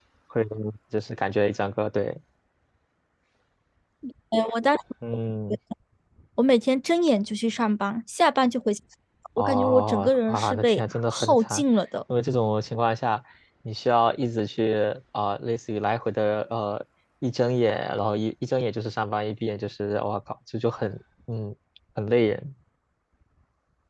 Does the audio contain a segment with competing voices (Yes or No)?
Yes